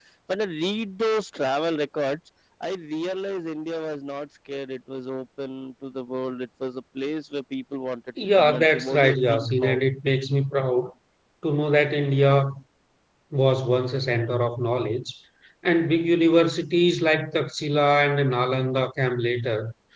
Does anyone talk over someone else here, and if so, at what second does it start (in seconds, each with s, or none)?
8.2 s